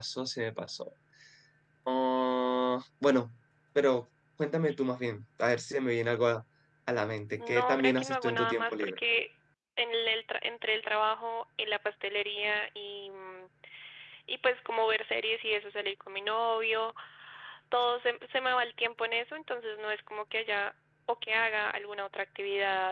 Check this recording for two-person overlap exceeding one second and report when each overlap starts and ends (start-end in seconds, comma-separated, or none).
7.4-8.9